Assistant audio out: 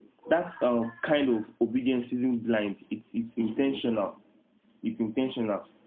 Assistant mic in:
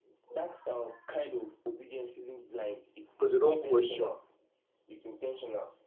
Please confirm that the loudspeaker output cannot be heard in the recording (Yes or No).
No